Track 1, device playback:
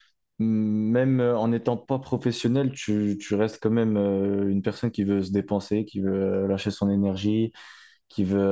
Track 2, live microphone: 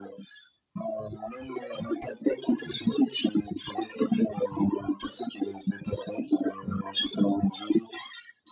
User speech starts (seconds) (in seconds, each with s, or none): none